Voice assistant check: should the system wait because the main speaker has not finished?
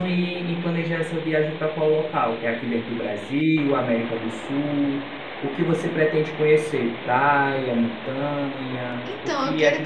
No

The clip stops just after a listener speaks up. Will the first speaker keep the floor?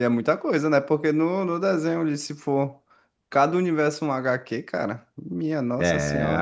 No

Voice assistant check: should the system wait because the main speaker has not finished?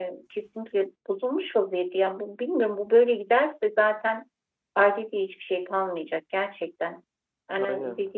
Yes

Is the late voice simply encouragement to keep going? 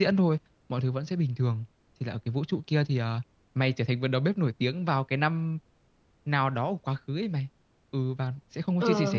Yes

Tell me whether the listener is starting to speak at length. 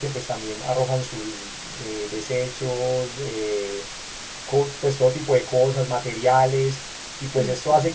No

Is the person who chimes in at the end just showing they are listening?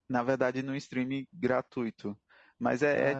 Yes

